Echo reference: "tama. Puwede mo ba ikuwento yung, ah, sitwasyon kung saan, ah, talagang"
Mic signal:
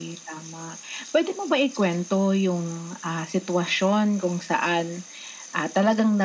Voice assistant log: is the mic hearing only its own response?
Yes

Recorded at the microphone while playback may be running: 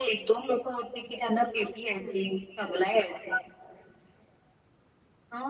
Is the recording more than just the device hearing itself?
No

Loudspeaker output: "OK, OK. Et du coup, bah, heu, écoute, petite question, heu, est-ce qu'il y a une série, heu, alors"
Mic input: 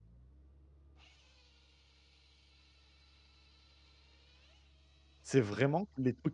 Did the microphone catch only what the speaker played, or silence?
No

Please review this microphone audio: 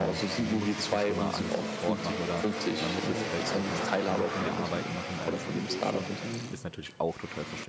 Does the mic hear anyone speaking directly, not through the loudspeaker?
Yes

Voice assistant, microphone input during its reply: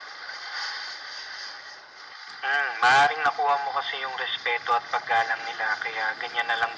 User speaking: No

